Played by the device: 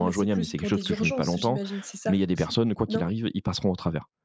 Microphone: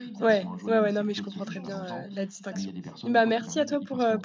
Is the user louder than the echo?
Yes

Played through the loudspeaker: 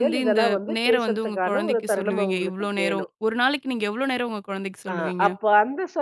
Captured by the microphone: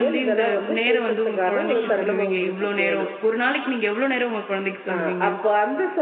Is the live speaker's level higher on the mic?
No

